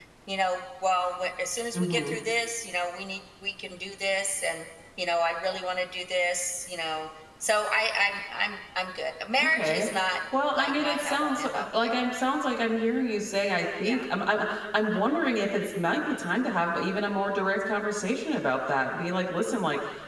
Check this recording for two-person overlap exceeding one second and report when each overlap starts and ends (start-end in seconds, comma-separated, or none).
10.5-12.1